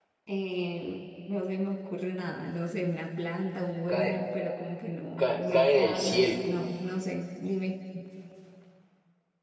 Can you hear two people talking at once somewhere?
Yes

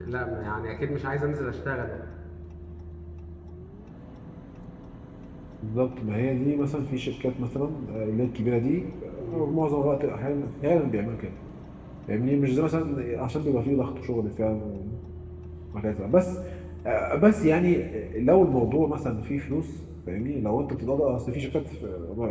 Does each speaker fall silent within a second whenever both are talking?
Yes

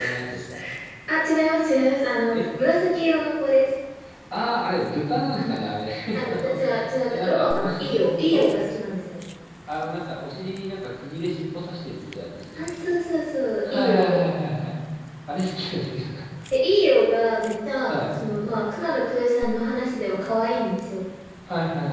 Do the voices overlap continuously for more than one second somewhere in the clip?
Yes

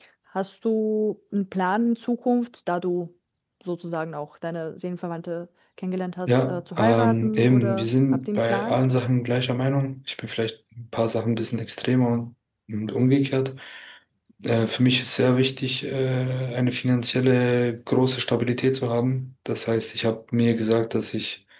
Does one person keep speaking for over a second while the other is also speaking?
Yes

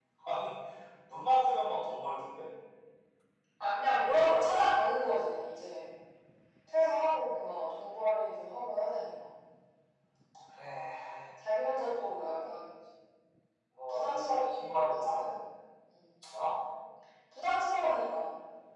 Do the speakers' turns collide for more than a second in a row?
Yes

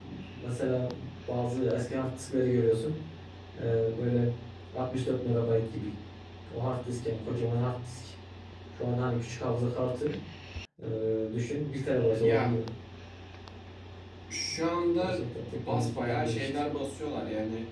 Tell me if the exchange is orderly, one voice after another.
No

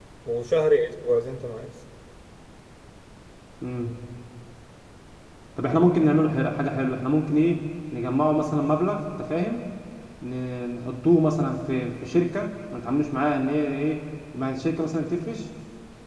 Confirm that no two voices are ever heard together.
Yes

